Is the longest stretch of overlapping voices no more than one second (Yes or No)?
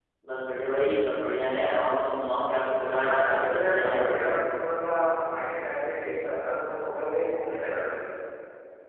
No